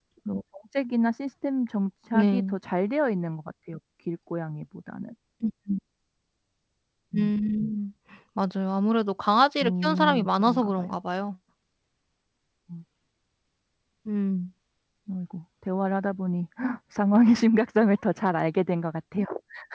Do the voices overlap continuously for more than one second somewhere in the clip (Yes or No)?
Yes